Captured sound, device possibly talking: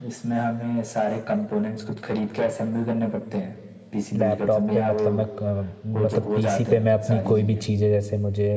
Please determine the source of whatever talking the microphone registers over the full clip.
both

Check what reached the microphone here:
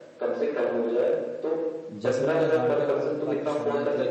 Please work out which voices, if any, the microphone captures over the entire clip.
both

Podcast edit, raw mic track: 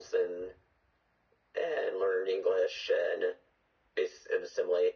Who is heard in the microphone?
echo only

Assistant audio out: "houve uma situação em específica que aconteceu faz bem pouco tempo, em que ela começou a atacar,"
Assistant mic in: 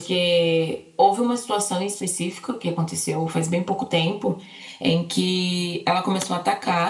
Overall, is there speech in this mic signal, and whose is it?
echo only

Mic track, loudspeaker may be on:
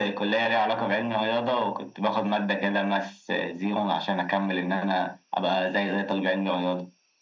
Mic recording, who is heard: echo only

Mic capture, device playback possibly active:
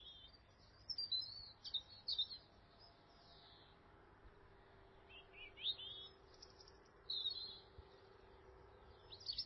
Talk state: neither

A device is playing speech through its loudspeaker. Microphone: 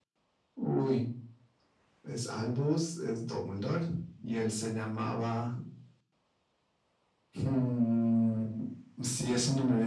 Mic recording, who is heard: echo only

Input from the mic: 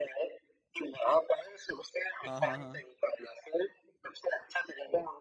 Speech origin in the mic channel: both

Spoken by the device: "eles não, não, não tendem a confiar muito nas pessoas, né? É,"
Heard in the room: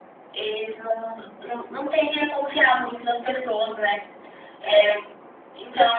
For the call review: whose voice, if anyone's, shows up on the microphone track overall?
echo only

